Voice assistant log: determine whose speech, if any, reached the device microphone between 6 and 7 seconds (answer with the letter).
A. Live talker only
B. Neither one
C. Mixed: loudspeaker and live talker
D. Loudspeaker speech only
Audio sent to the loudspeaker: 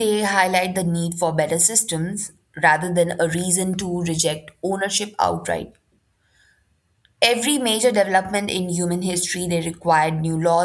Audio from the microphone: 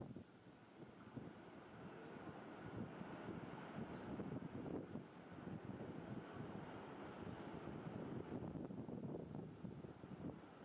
B